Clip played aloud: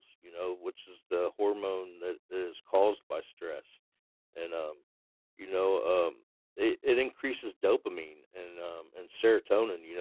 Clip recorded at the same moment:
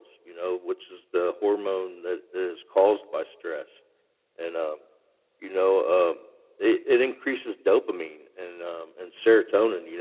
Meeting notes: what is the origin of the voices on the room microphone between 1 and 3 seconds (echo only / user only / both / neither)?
echo only